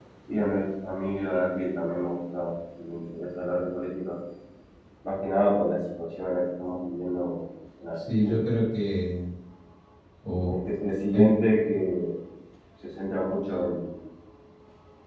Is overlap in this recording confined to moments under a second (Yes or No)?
Yes